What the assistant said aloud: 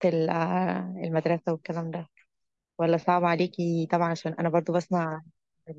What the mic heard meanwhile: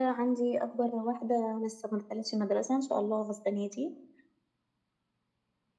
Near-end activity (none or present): present